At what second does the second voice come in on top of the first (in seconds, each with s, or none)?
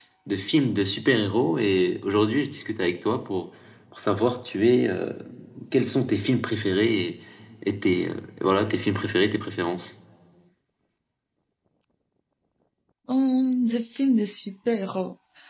none